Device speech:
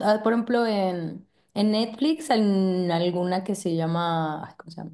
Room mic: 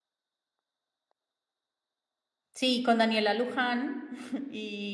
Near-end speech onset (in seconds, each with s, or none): 2.5 s